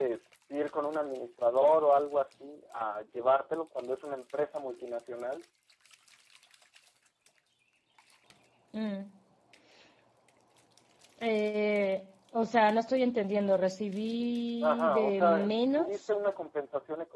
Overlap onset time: 14.6 s

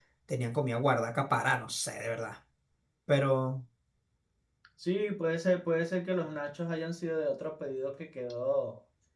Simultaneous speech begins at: none

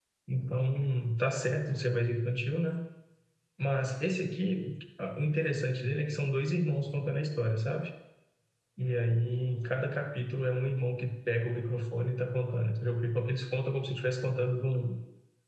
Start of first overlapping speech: none

